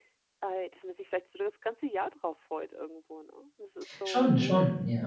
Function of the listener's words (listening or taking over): taking over